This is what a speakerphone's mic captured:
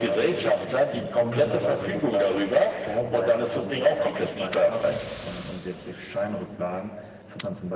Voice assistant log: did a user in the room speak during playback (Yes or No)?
No